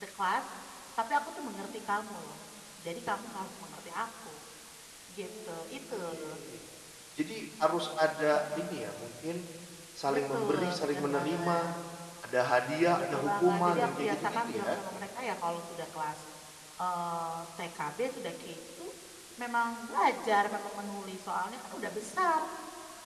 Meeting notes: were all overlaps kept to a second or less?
No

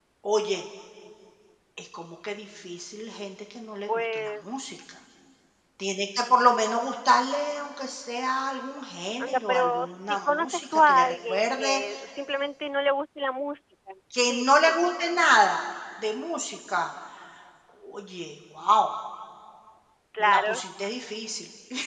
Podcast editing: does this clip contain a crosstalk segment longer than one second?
Yes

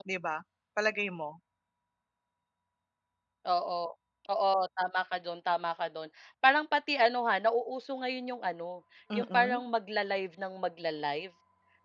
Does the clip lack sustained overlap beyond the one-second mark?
Yes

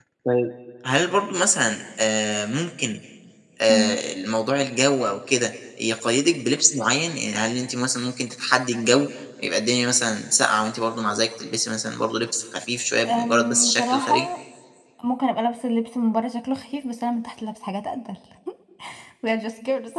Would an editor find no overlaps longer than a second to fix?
No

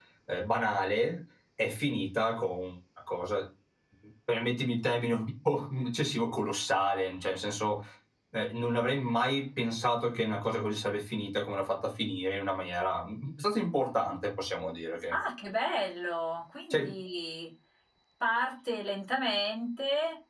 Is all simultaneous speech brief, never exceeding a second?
Yes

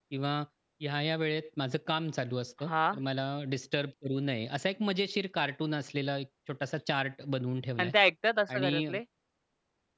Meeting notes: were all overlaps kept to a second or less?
Yes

